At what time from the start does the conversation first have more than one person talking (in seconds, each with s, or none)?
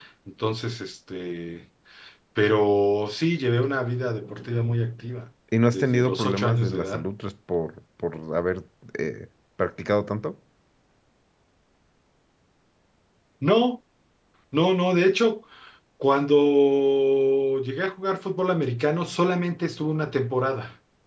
5.7 s